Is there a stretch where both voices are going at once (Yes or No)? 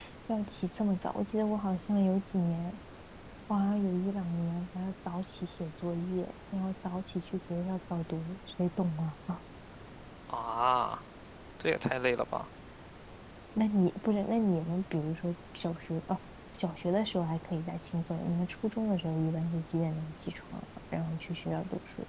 No